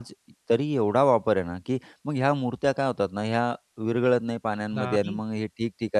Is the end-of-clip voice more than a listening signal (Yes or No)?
No